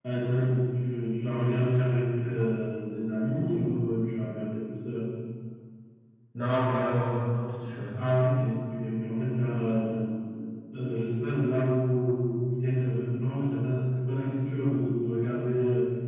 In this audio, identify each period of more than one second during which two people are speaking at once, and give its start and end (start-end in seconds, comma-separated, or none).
none